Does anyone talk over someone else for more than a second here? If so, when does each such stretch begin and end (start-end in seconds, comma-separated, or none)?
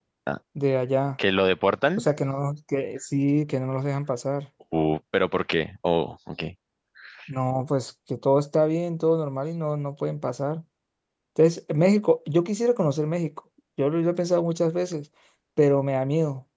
none